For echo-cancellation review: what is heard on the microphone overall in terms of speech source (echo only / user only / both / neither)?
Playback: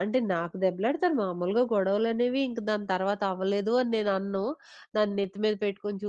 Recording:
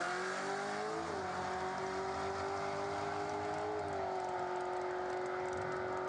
neither